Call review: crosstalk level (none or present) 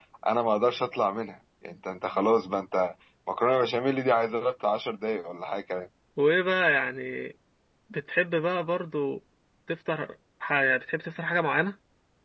none